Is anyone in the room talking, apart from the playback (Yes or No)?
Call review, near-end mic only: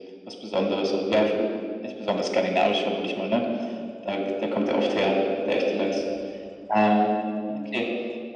No